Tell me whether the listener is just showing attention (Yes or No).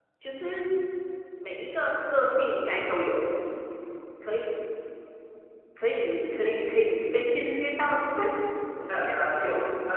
No